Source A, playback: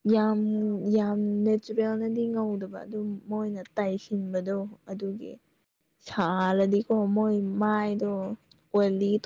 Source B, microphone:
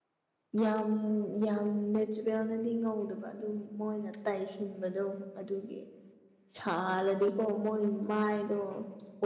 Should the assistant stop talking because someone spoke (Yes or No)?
No